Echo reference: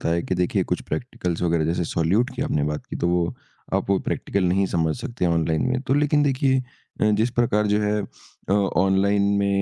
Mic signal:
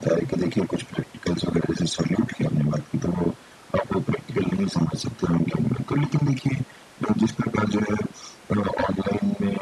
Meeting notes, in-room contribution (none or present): none